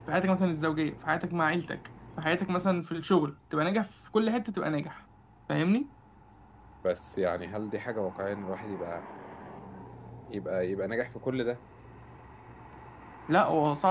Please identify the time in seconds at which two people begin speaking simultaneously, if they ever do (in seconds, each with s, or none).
none